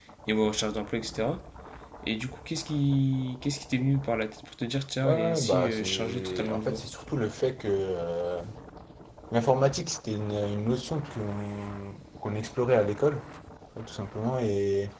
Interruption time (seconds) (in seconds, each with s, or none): 5.0 s